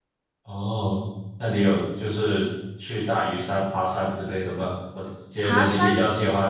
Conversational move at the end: listening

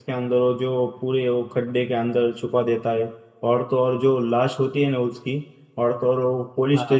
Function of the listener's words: listening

